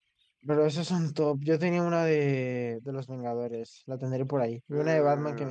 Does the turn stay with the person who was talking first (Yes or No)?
No